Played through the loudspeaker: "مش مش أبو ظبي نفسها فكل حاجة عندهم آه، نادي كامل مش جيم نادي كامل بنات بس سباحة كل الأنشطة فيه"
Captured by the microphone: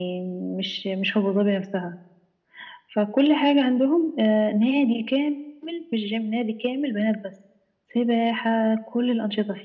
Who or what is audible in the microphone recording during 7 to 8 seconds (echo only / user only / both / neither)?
echo only